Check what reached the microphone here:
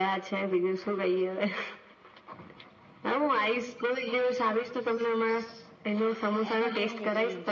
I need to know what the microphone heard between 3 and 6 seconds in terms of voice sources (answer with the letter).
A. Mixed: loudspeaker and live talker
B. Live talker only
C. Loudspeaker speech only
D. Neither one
C